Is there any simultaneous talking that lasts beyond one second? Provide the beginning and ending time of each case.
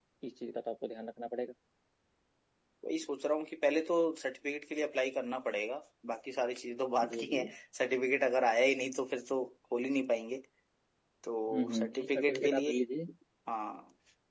11.5-12.7

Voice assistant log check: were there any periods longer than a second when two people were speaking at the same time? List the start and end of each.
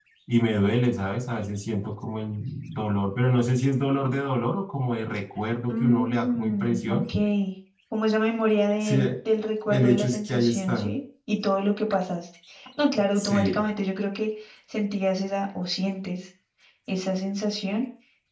5.7-7.0, 9.7-10.9

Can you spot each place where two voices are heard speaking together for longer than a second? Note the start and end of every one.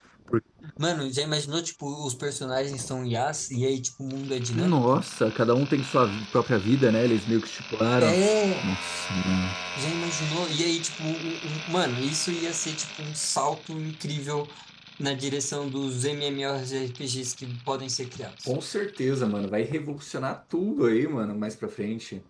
none

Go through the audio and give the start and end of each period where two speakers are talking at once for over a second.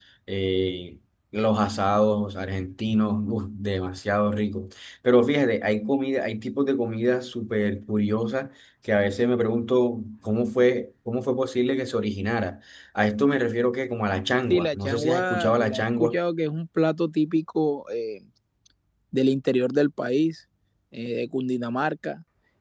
14.5-16.2

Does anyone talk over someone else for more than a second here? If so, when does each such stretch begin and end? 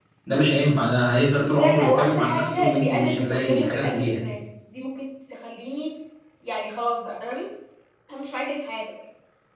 1.5-4.2

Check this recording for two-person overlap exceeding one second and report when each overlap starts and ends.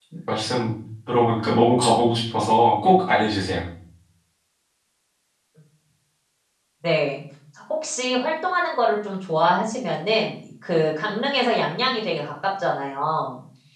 none

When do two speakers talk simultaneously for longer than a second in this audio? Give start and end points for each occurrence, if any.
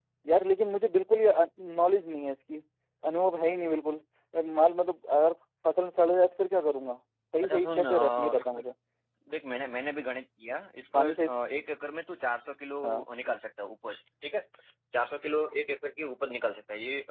7.4-8.6

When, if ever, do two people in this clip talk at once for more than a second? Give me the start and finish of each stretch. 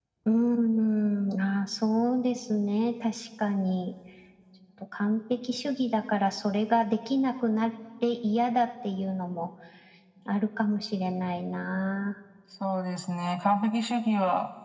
none

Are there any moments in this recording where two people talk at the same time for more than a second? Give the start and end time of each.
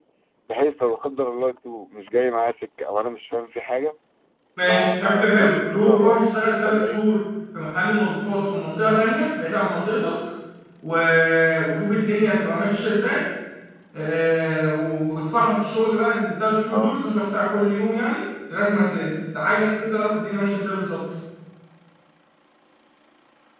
4.6-6.2

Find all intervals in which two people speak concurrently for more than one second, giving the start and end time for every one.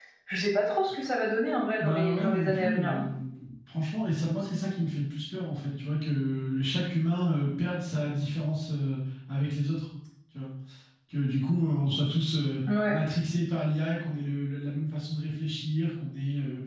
1.8-3.0

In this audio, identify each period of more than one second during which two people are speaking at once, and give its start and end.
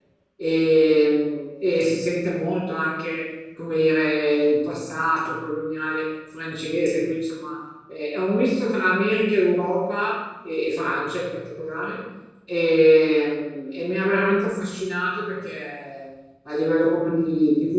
none

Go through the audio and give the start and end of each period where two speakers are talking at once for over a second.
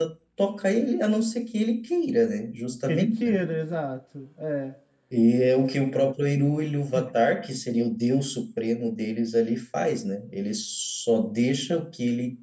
none

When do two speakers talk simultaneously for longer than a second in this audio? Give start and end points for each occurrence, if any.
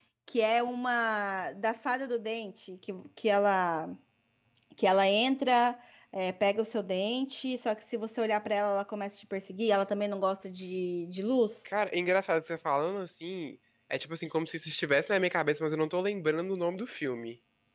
none

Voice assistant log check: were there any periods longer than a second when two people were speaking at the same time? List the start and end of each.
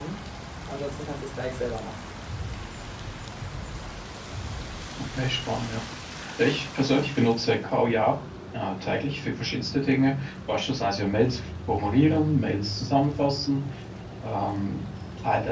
none

